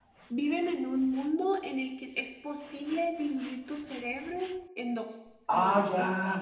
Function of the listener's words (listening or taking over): taking over